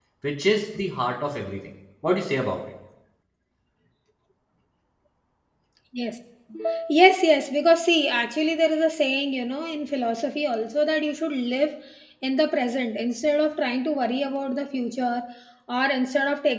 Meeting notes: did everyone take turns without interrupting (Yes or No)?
Yes